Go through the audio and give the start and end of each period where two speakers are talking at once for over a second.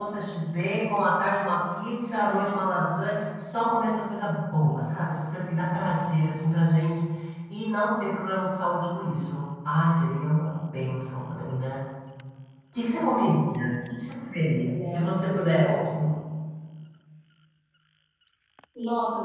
14.6-15.8

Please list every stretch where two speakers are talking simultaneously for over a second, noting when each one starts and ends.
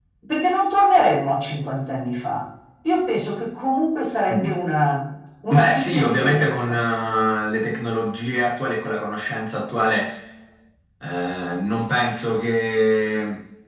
5.5-6.8

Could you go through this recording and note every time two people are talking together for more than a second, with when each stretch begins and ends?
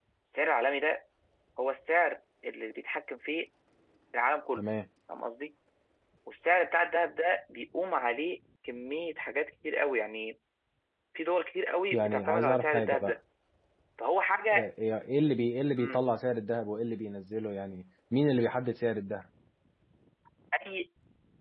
11.9-13.2

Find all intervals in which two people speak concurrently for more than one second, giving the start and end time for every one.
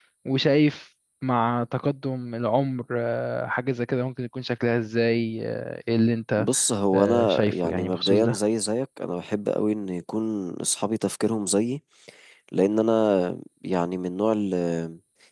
6.9-8.4

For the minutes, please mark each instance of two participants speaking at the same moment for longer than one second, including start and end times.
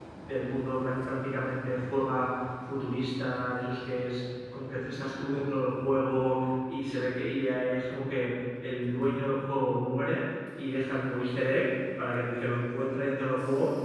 none

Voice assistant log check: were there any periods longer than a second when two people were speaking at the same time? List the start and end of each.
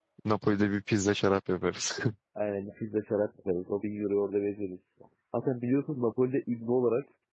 none

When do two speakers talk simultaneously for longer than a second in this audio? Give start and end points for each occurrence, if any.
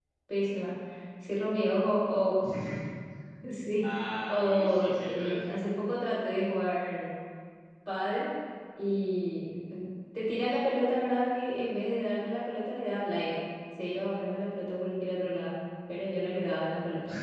4.3-5.6

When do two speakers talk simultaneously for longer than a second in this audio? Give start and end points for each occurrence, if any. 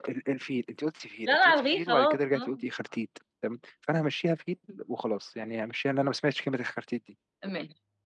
1.3-2.6

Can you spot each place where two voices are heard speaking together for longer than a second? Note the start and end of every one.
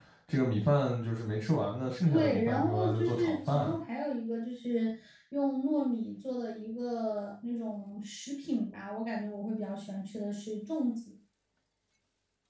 2.1-3.8

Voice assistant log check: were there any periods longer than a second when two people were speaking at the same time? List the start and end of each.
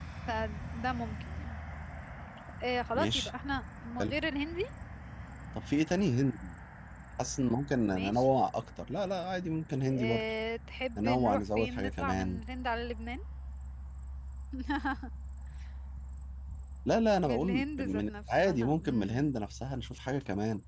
11.0-12.4, 17.2-19.3

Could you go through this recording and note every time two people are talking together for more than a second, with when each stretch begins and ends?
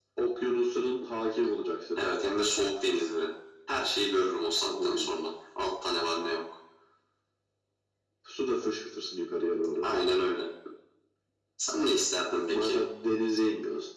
none

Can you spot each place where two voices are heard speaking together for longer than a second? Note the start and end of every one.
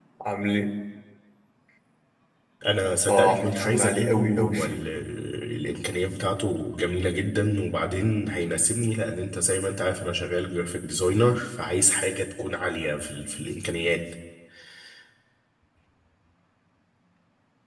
3.1-4.8

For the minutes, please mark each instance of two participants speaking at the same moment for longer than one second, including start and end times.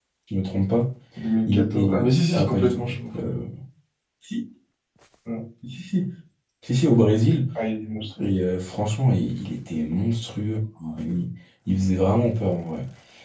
1.5-3.2

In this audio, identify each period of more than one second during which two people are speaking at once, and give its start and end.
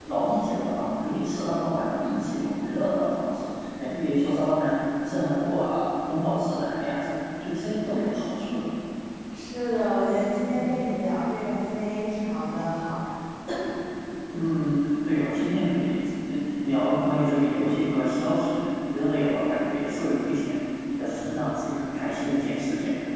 none

